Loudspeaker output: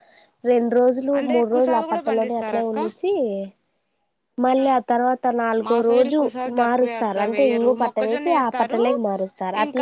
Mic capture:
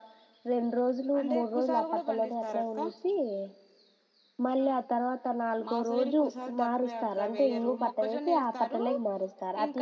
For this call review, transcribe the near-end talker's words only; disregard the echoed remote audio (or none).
none